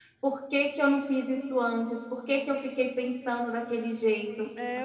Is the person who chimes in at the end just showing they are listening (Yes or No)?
No